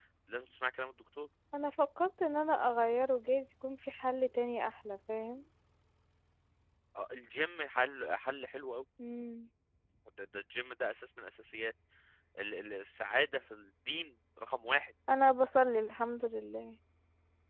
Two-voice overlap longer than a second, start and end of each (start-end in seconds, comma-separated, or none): none